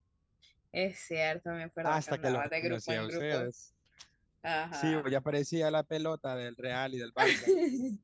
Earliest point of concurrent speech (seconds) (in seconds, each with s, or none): 1.9 s